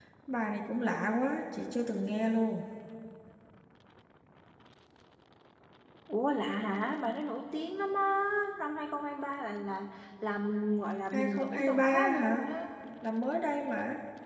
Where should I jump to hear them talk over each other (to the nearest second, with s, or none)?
11 s